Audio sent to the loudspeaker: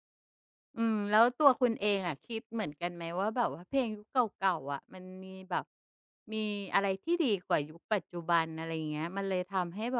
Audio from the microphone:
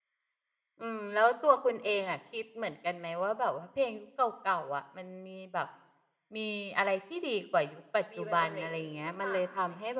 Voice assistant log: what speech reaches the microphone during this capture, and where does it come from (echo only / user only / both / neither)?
both